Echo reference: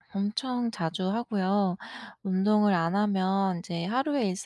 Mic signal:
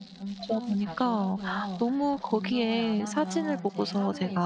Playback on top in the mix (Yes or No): No